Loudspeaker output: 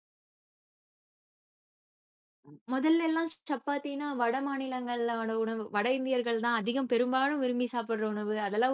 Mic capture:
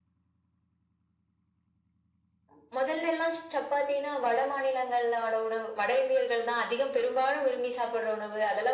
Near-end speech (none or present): none